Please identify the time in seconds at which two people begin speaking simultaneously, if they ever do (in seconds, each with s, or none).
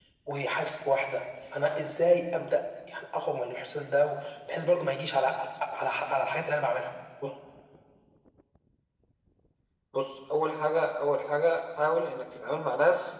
none